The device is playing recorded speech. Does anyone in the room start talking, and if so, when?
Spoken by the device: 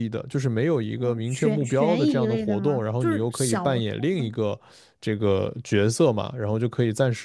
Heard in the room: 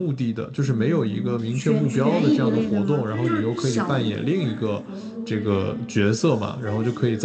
1 s

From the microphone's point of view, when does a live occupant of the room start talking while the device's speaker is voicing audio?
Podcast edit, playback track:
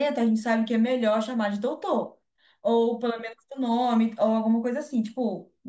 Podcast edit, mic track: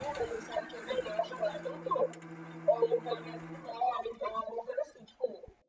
none

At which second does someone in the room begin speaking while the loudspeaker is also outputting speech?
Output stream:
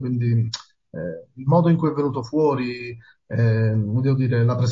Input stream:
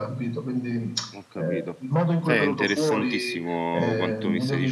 1 s

